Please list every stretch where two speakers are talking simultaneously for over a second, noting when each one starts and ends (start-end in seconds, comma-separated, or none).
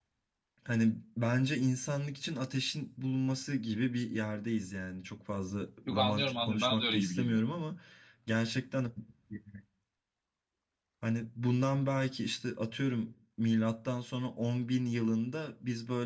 5.9-7.4